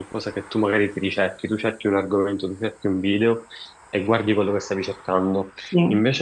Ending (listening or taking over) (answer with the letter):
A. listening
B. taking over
A